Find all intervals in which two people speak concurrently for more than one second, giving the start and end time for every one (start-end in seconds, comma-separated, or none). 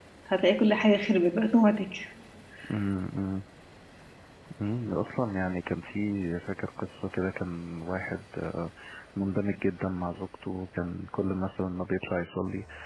none